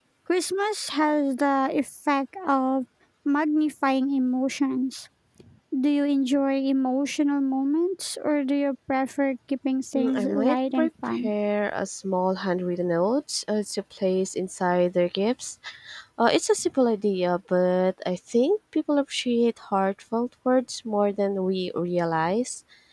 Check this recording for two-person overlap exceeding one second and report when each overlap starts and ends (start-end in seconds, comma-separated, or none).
9.9-11.3